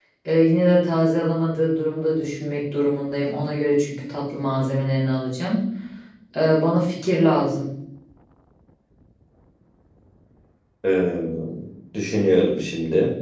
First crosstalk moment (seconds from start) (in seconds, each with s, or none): none